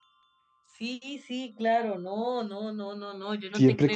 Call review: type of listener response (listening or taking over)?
taking over